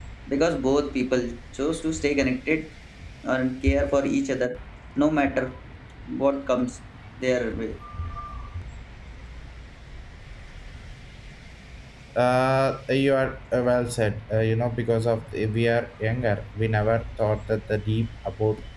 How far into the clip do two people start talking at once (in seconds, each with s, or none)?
none